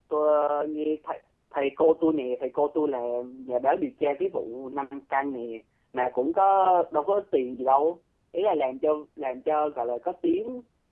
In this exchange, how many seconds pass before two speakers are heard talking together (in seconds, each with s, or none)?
none